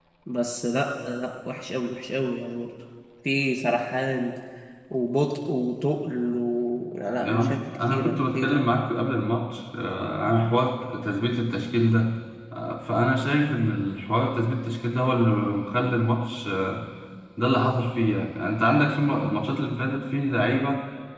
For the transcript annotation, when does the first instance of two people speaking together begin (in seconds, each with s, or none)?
7.0 s